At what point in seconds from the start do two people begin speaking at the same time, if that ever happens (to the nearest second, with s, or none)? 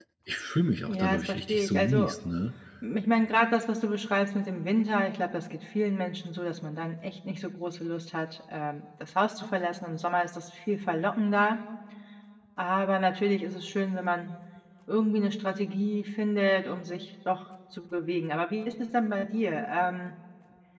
1 s